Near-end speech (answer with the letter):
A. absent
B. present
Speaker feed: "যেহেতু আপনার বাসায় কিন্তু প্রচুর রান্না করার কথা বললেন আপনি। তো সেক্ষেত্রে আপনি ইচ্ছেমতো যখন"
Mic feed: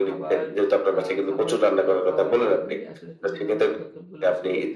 B